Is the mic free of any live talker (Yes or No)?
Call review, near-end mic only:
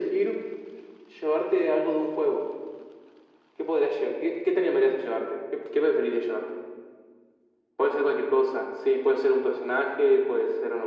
Yes